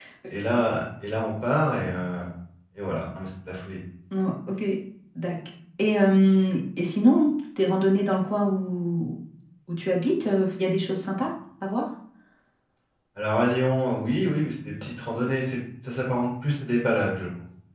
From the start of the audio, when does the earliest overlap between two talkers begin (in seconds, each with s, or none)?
none